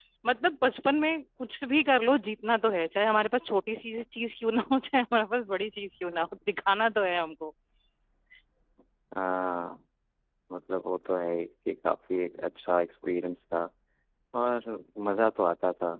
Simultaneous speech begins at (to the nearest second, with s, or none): none